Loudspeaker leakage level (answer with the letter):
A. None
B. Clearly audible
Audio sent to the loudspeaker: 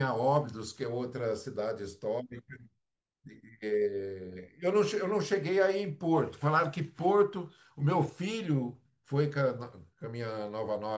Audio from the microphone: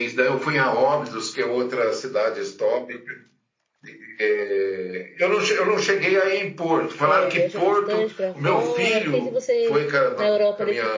B